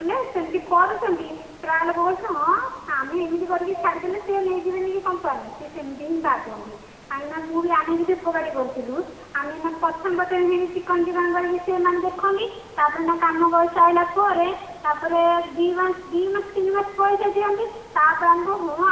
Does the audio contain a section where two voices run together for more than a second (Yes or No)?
No